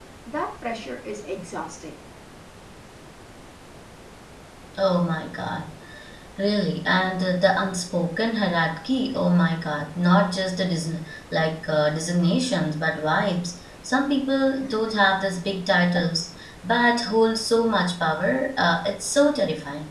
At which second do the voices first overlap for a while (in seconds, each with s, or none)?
none